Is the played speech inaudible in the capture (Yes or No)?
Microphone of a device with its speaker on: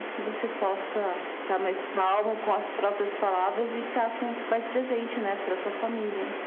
No